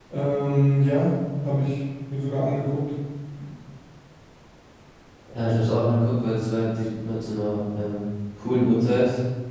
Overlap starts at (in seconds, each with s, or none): none